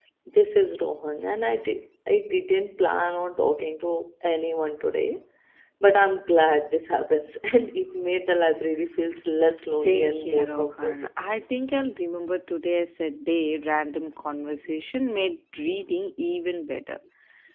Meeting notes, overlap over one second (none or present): present